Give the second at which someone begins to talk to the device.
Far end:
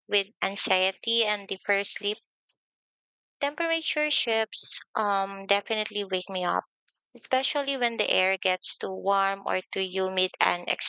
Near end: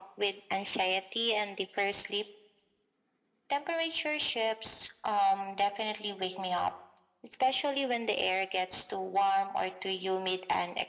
none

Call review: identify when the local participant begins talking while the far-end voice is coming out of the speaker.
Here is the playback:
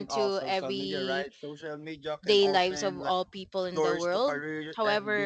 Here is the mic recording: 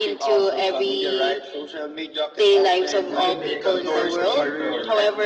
3.0 s

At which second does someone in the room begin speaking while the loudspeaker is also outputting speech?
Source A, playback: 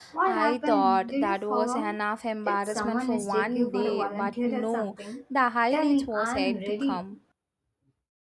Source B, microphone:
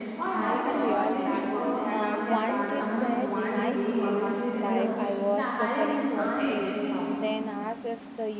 0.3 s

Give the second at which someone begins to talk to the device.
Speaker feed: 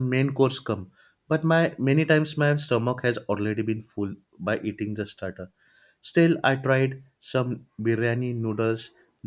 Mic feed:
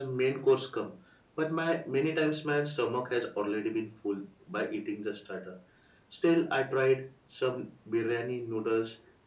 none

